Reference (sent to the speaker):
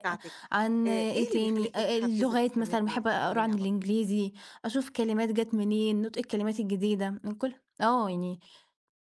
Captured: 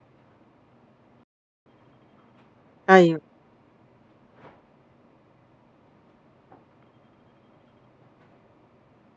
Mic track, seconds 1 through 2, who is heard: neither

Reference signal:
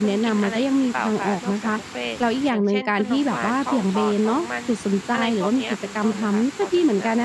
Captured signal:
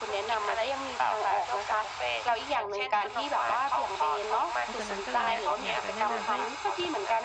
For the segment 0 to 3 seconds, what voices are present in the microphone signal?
echo only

